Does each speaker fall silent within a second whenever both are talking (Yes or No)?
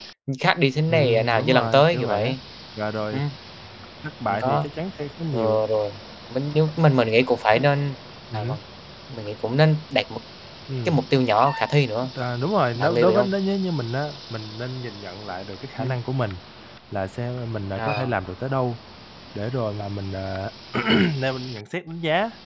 No